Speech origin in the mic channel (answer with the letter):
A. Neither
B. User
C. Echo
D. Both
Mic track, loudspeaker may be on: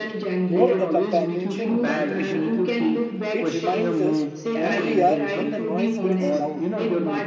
D